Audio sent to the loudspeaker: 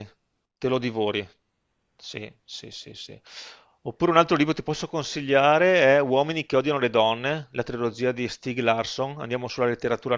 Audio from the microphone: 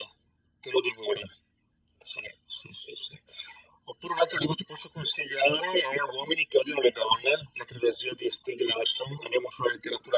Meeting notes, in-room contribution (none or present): none